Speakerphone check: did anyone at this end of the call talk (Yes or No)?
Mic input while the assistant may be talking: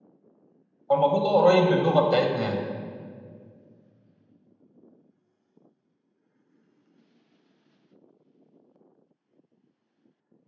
Yes